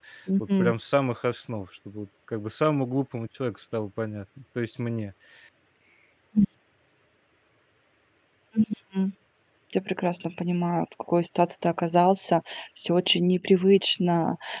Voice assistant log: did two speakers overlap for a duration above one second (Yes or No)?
No